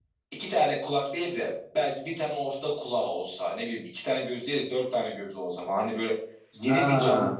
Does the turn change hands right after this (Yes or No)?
No